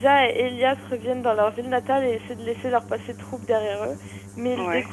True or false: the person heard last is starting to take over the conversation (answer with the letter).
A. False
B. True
A